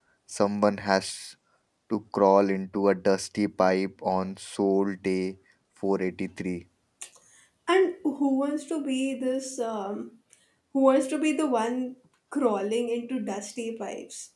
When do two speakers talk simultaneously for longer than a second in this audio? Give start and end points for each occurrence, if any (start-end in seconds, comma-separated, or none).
none